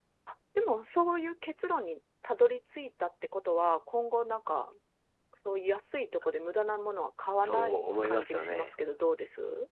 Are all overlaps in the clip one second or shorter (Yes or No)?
No